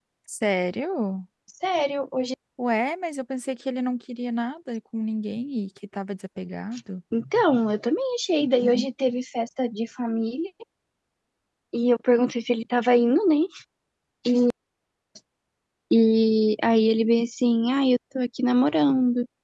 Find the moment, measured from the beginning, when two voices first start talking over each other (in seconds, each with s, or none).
none